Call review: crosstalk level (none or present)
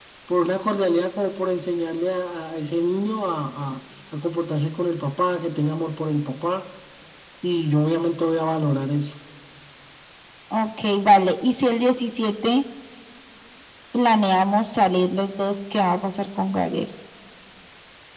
none